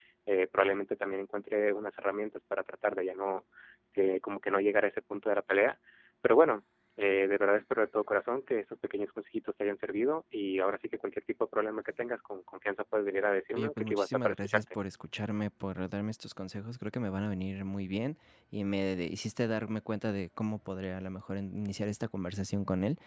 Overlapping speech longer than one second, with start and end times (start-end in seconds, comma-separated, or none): 13.6-14.8